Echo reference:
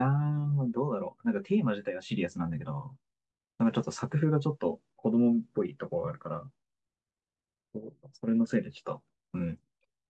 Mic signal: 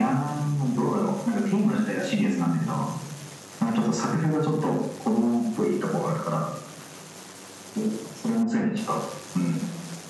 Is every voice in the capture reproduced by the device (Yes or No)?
Yes